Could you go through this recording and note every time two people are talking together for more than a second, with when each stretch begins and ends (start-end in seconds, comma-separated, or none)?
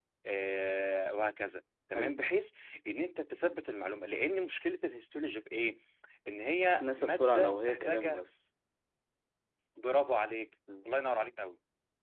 6.7-8.2